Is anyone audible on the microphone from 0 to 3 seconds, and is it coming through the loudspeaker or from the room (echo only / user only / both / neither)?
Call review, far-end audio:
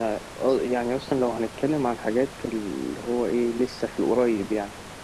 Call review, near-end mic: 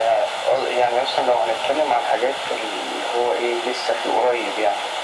echo only